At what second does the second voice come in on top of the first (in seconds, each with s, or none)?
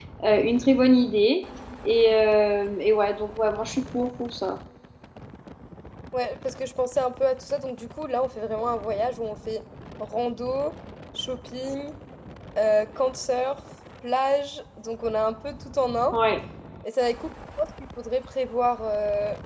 none